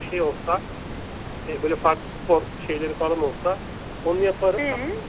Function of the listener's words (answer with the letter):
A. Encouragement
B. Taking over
A